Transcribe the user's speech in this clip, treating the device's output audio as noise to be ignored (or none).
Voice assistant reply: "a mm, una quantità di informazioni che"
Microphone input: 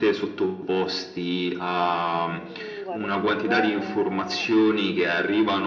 Mhmm, guarda secondo me, ehm,